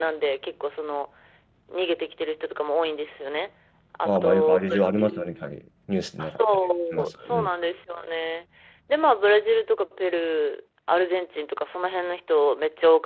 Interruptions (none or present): present